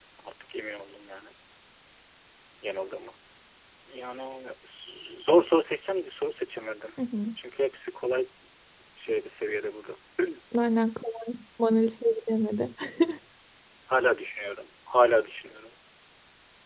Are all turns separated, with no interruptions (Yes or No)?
Yes